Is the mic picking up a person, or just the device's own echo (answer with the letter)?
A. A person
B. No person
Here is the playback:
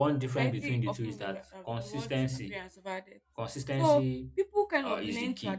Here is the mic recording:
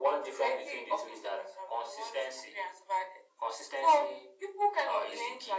B